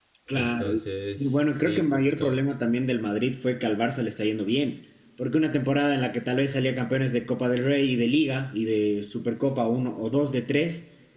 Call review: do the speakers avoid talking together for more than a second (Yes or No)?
No